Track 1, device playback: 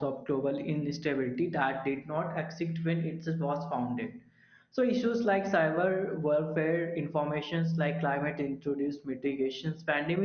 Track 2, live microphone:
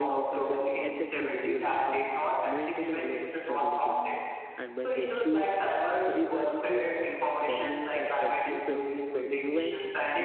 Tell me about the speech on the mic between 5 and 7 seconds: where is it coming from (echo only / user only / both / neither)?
both